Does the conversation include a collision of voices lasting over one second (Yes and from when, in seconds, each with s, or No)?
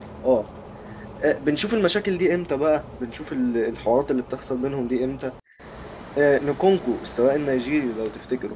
No